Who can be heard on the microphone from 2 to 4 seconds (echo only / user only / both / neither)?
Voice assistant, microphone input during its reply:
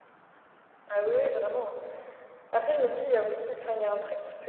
echo only